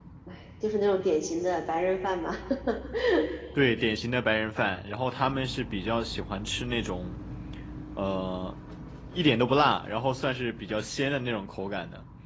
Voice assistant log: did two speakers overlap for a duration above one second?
No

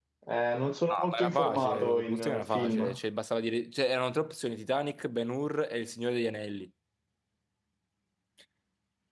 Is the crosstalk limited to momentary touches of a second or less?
No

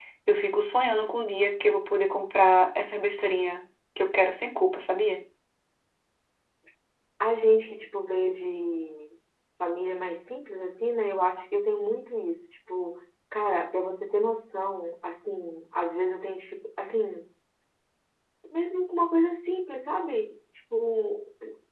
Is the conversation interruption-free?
Yes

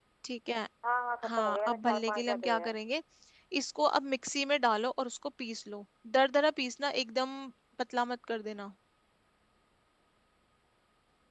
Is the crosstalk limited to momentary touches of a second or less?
No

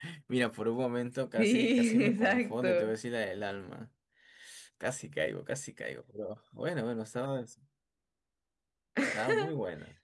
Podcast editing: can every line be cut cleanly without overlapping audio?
No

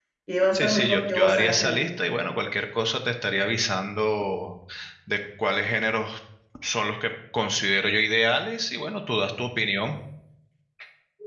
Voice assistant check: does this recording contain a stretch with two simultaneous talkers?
Yes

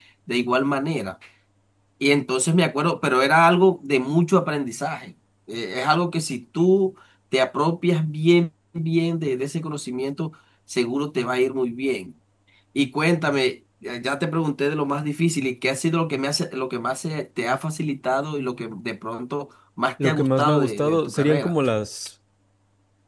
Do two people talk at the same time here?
Yes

